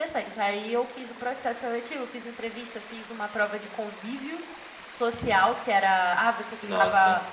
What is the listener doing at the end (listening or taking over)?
listening